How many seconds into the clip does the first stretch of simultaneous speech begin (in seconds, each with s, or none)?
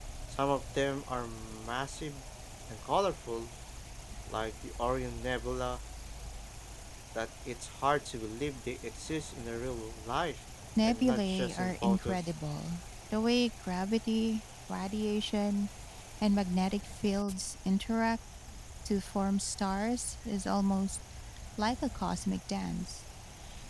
10.8 s